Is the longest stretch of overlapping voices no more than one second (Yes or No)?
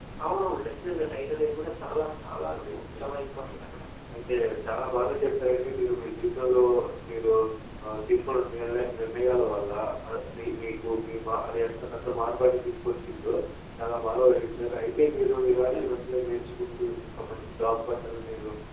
Yes